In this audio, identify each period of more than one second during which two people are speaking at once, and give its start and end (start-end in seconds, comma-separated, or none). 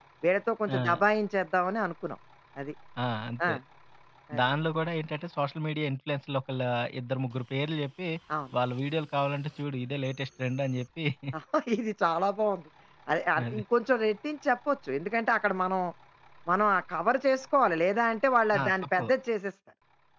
none